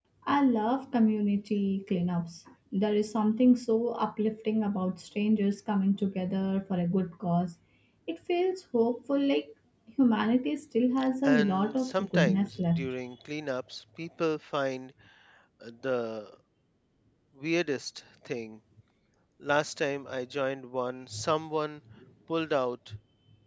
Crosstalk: present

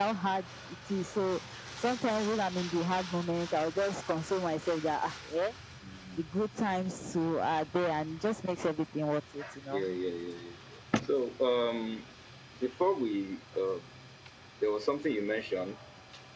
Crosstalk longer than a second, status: none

